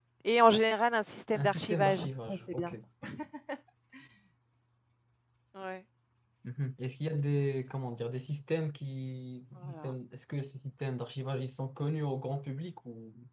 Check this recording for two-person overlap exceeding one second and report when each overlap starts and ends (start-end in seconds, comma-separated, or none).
1.3-2.7